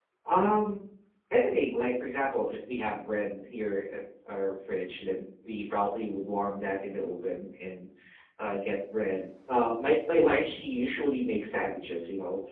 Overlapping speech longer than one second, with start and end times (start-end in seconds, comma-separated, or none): none